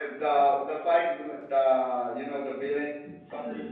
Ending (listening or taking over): taking over